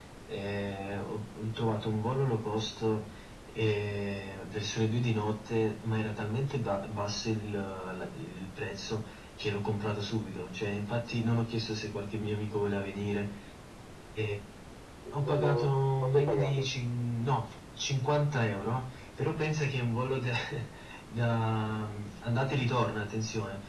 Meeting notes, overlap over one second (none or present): present